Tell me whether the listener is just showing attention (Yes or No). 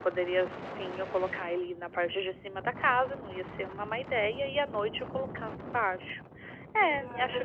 No